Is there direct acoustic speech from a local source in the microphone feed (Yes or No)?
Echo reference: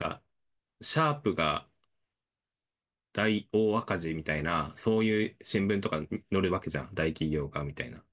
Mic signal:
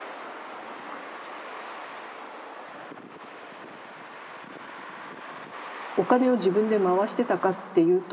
Yes